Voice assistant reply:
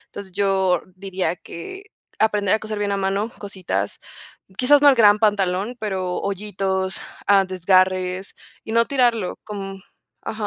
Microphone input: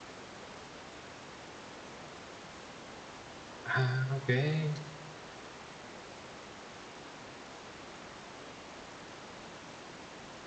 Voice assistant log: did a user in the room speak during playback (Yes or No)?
Yes